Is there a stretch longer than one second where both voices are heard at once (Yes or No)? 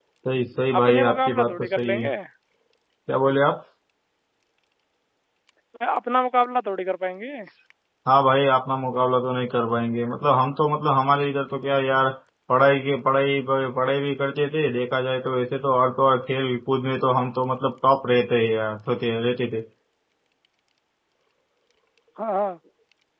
Yes